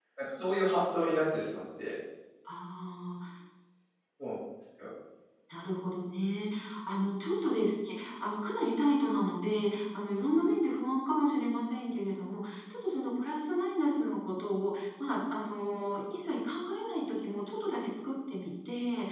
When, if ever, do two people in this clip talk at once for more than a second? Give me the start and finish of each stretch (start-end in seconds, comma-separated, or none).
none